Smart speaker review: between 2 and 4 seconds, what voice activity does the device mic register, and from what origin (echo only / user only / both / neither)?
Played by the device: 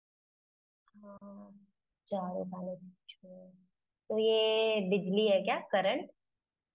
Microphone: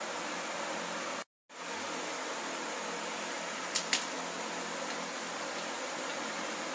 neither